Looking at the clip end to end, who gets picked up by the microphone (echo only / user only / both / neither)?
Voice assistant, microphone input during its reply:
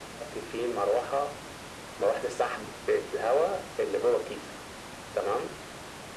echo only